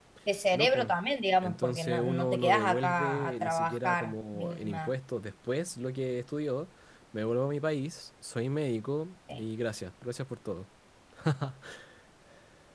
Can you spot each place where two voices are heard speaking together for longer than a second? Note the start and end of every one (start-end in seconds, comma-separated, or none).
1.4-4.9